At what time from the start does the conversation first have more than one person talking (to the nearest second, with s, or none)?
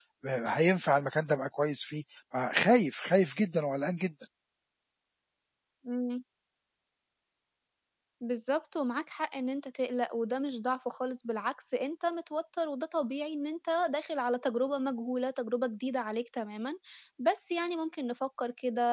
none